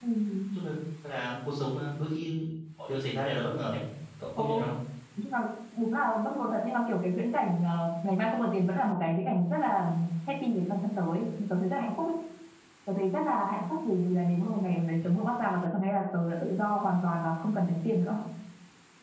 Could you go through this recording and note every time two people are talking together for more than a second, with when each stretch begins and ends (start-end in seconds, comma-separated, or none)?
none